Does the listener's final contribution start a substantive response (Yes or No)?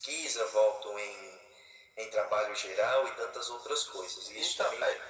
Yes